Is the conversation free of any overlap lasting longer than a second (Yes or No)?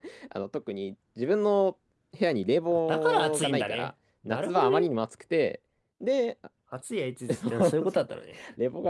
No